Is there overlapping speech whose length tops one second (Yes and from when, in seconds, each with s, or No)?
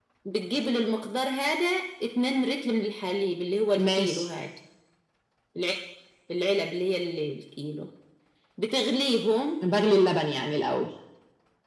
No